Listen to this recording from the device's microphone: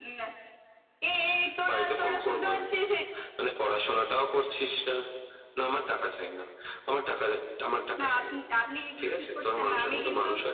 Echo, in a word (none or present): present